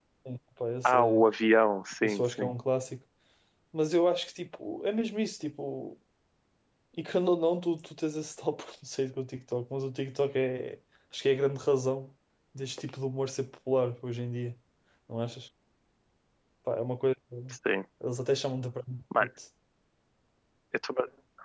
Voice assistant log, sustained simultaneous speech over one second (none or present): none